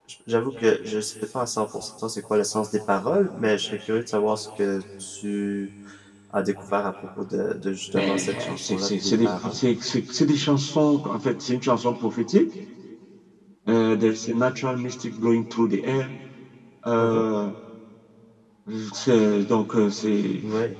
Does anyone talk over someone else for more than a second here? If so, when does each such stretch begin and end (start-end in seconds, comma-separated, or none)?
7.9-9.6